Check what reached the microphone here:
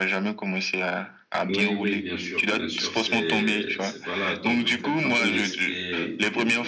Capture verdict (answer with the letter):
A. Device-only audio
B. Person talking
B